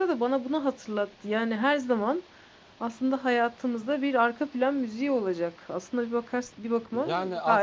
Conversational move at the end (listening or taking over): taking over